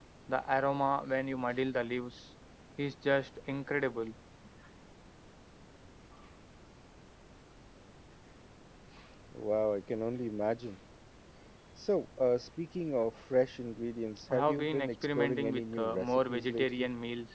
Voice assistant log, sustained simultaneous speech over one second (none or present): present